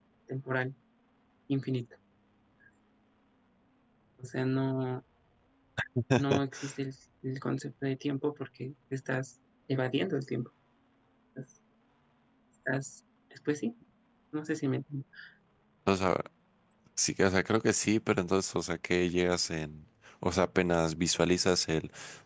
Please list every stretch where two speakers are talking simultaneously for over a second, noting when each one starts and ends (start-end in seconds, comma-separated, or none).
none